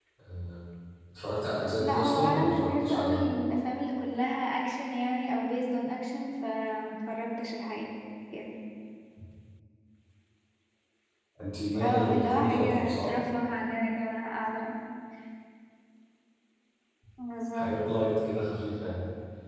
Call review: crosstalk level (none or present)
present